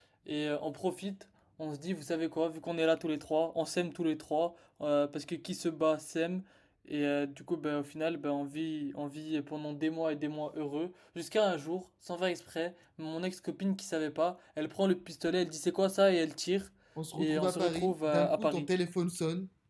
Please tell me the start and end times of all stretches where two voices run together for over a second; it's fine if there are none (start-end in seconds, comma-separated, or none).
17.2-18.7